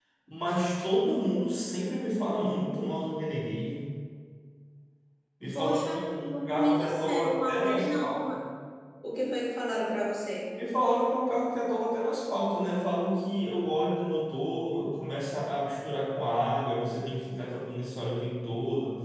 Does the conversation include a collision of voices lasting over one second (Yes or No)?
Yes